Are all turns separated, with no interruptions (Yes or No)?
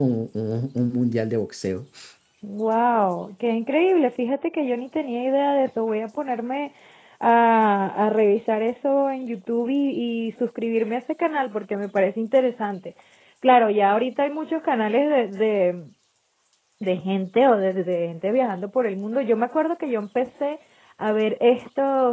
Yes